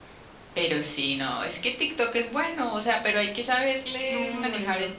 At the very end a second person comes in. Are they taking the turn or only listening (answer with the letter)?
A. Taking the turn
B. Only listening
A